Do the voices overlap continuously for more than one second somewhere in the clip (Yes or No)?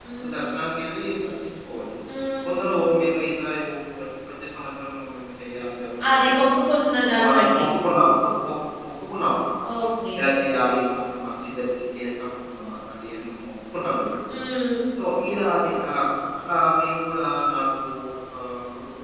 No